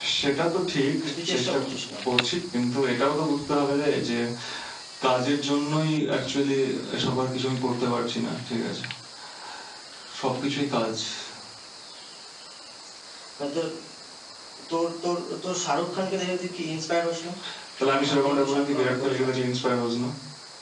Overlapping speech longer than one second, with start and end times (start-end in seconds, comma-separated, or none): 18.1-19.3